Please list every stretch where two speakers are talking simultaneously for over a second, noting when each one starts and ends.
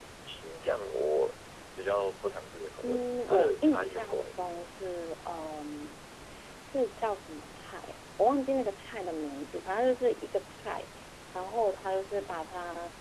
2.8-4.7

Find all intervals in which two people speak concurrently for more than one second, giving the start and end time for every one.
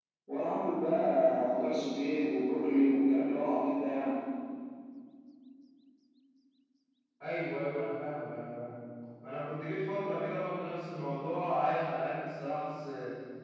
none

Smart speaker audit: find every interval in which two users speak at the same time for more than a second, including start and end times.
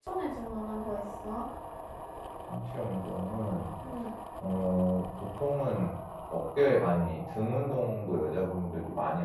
none

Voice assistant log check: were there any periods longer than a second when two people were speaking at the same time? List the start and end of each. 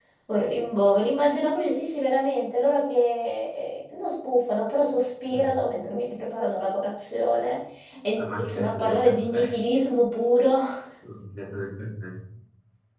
8.2-9.4

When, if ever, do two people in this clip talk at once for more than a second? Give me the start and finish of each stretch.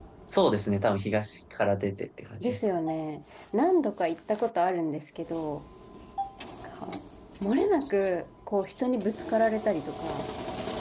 none

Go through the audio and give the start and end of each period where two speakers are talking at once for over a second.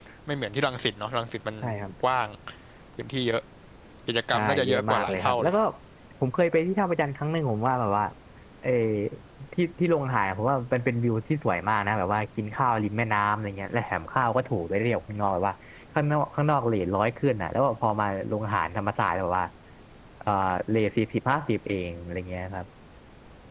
4.3-5.5

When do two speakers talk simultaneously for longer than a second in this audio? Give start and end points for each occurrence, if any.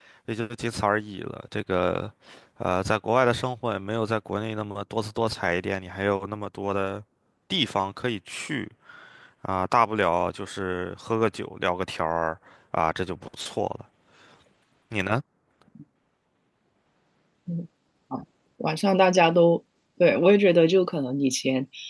none

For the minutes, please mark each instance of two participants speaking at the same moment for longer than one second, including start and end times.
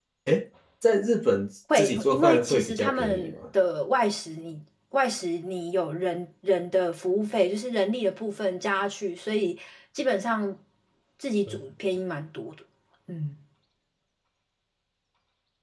1.8-3.4

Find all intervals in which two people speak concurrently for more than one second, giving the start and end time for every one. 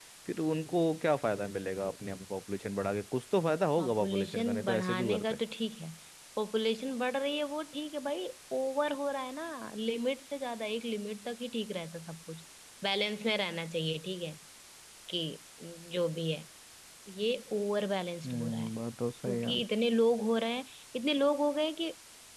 3.8-5.4

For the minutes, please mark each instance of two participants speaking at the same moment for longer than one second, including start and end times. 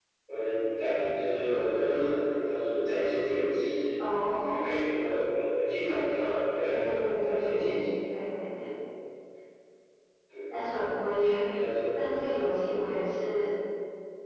6.6-7.9

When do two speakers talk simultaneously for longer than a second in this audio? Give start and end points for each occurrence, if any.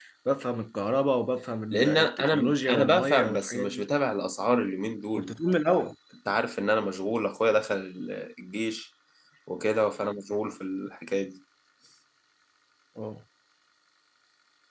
1.7-3.8

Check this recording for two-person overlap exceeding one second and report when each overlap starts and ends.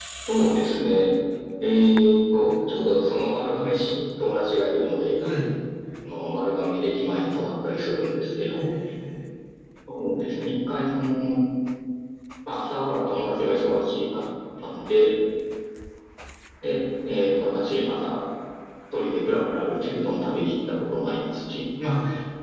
none

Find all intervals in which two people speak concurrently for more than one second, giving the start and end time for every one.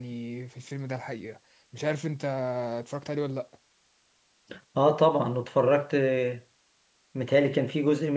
none

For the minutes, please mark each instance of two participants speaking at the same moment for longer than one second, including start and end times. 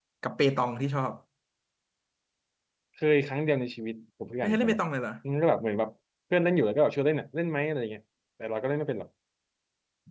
none

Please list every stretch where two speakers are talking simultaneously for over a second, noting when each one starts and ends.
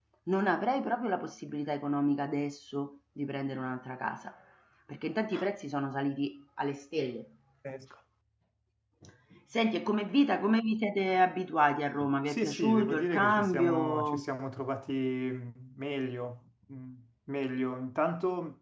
12.3-14.2

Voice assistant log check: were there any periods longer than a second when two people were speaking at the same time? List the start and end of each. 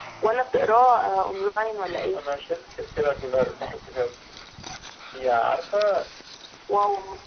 none

